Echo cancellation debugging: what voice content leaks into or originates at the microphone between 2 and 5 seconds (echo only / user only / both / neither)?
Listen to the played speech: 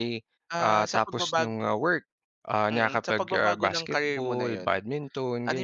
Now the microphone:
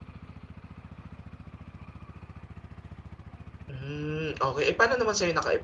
user only